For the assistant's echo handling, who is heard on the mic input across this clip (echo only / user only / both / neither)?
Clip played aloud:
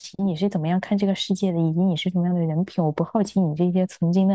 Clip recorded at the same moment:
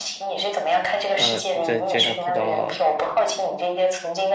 both